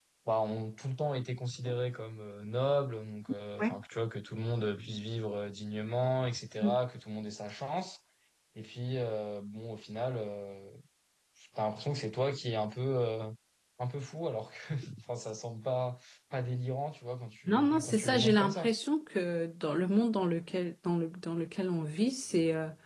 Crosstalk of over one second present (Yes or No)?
Yes